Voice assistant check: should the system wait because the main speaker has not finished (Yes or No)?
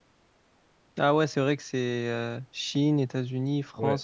No